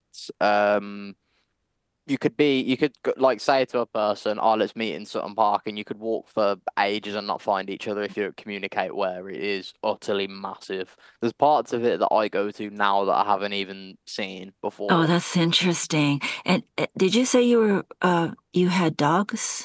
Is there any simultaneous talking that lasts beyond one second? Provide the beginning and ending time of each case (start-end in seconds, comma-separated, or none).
none